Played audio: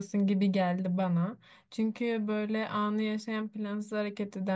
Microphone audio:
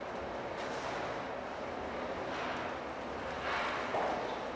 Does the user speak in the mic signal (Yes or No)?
No